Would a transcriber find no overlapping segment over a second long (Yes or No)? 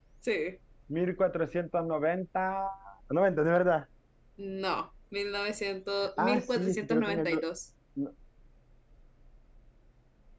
No